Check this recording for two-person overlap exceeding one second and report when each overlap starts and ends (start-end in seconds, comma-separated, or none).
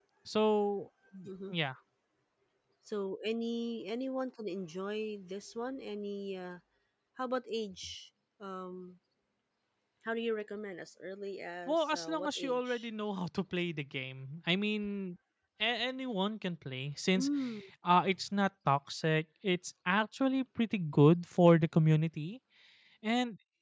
11.7-12.9